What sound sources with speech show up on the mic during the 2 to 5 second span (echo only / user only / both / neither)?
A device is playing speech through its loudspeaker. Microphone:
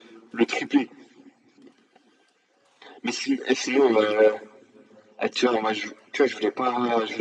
echo only